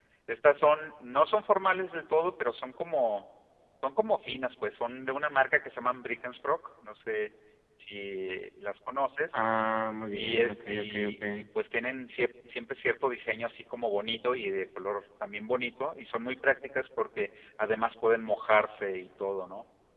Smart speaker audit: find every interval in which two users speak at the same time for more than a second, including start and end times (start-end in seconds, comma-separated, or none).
10.1-11.4